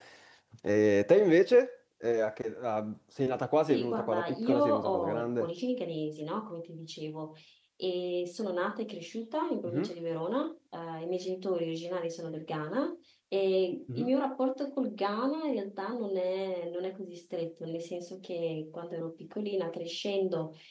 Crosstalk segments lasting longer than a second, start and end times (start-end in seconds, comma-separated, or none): 3.7-5.5